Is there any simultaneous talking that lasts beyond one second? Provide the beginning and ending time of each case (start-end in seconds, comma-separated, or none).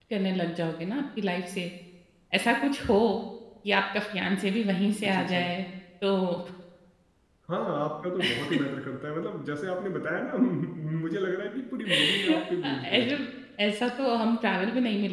none